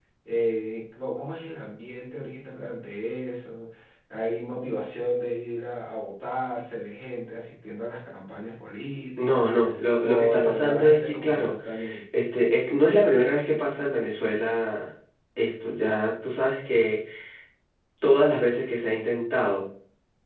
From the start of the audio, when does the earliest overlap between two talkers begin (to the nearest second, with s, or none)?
9 s